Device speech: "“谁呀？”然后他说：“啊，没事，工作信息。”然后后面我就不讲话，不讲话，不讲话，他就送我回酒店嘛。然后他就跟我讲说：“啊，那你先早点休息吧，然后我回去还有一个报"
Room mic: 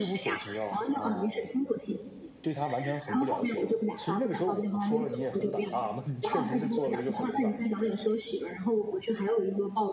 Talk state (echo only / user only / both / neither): both